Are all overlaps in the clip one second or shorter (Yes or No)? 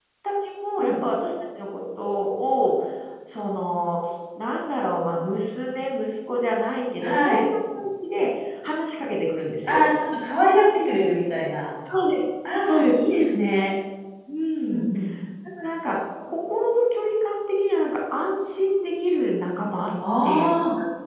Yes